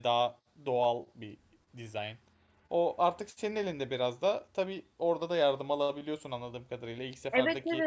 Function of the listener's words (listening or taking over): taking over